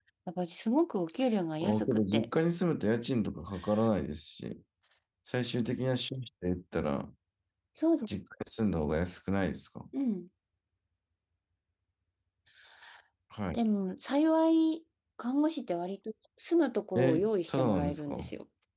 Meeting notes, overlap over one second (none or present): present